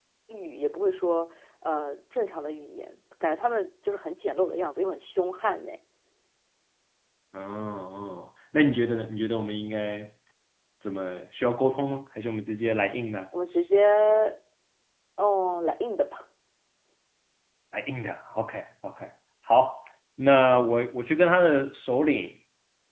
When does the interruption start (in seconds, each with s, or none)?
none